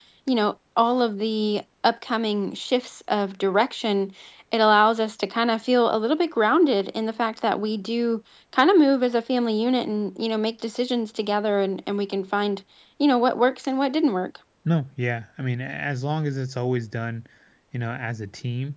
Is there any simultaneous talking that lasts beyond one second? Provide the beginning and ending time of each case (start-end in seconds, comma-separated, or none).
none